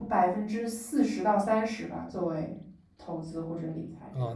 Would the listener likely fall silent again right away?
No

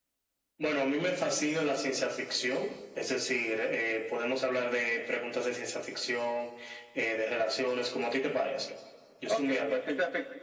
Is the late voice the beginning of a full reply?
Yes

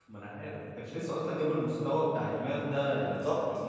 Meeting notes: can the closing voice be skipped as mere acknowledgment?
Yes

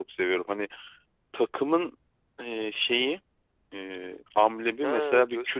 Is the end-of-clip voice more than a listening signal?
Yes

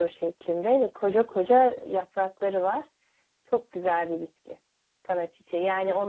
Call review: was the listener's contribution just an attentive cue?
Yes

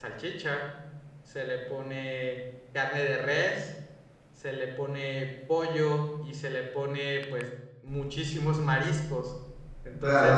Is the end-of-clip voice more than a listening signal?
Yes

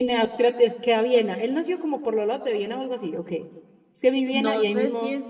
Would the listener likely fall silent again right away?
No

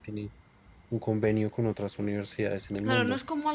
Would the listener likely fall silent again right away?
No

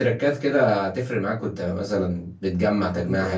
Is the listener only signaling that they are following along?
No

